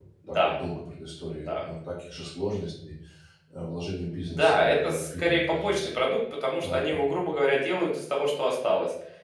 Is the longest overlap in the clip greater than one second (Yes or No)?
Yes